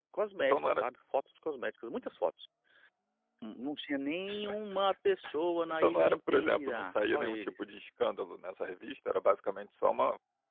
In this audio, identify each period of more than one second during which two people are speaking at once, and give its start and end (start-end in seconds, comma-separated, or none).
5.7-7.5